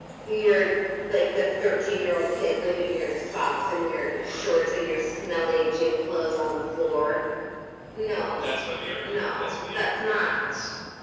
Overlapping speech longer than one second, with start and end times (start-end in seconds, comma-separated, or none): 9.0-10.4